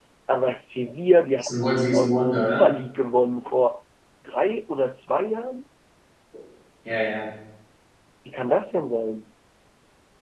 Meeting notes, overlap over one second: present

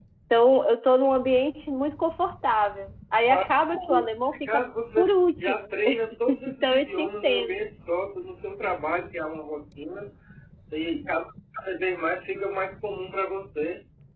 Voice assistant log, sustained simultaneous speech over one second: present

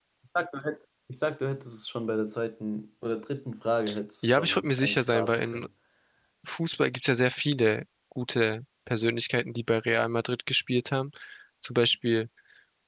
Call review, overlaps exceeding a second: present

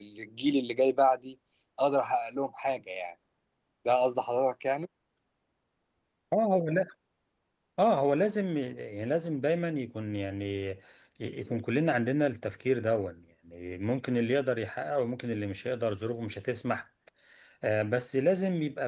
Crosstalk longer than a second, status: none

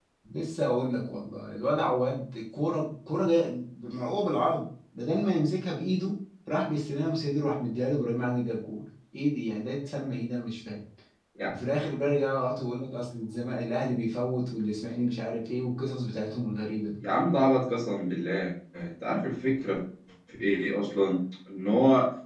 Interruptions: none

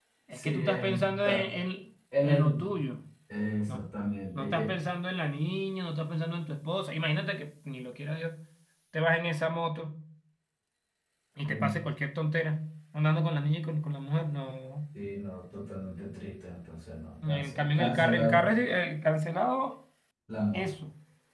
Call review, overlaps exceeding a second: present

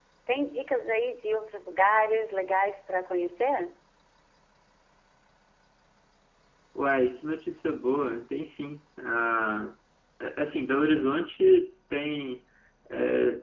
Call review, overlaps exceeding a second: none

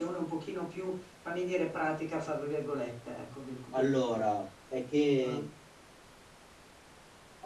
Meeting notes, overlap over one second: none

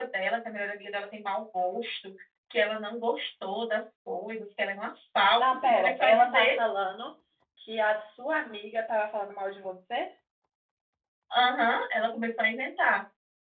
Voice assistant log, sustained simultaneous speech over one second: present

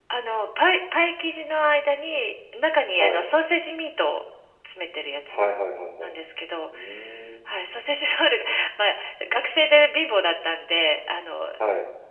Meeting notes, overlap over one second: none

